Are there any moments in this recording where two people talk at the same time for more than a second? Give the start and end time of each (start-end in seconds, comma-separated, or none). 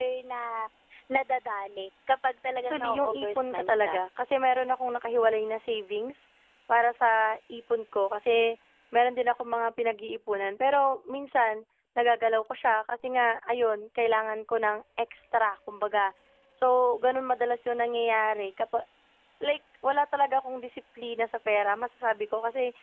2.7-4.0